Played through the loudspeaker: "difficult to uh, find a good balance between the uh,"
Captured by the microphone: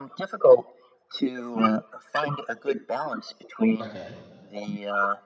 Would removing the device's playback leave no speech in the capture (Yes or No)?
No